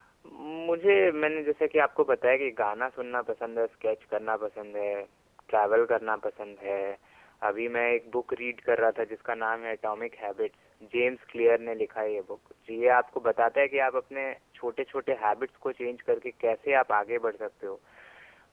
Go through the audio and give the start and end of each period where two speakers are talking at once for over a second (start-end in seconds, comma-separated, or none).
none